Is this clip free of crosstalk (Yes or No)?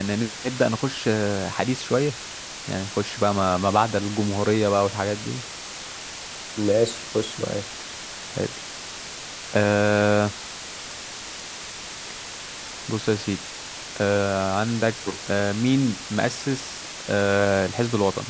Yes